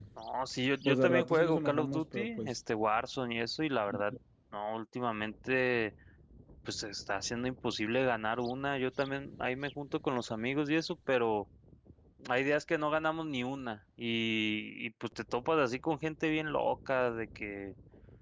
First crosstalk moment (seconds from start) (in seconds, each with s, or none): 0.8 s